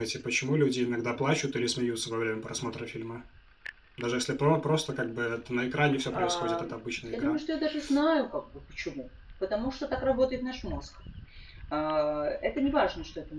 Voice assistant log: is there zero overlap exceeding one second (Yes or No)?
No